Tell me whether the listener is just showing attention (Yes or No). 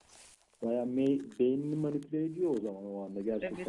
No